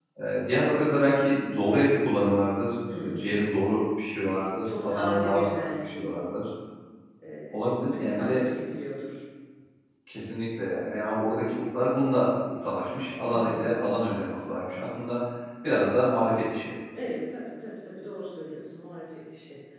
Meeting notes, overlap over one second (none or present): present